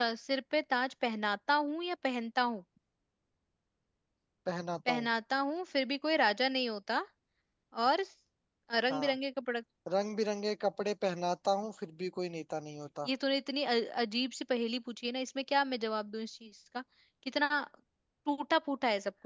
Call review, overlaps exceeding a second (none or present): none